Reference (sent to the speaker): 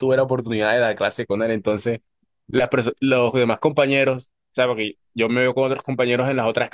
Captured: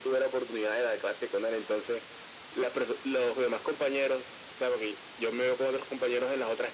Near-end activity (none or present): none